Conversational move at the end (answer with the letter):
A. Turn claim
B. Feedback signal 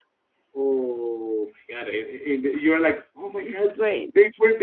B